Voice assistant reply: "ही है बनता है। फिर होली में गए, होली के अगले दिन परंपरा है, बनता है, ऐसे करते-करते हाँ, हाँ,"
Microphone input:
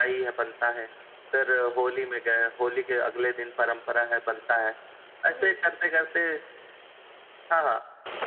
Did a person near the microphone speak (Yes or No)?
Yes